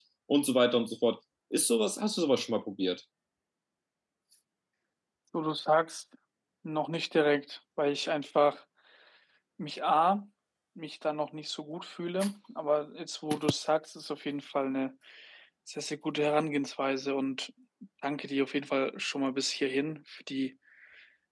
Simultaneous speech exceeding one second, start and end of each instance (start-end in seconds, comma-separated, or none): none